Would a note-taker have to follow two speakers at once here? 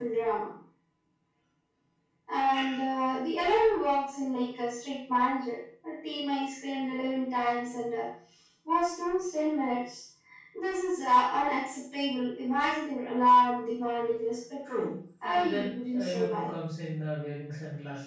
Yes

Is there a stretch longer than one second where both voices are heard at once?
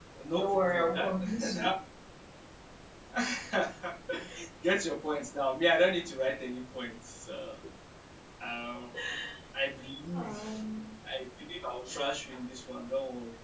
Yes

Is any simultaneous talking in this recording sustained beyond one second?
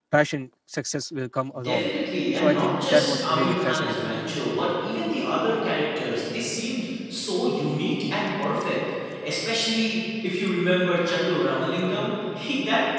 Yes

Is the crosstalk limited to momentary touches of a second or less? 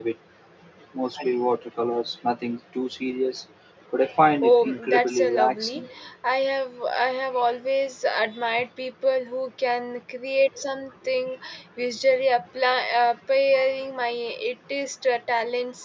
No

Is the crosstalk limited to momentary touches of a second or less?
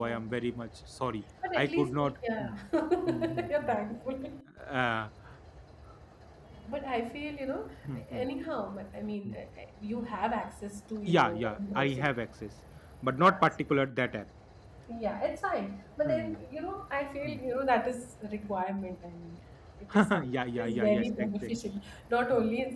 No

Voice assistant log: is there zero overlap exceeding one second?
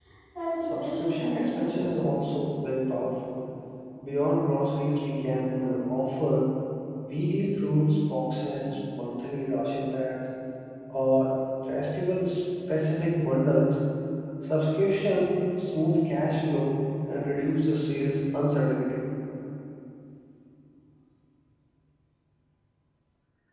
No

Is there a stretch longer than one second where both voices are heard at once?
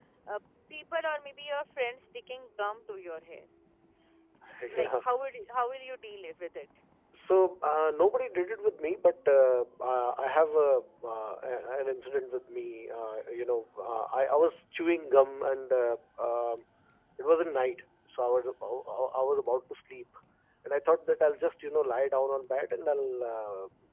No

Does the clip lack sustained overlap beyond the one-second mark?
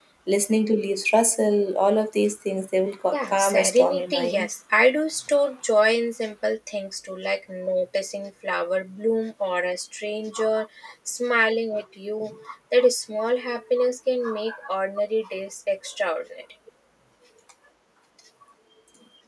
No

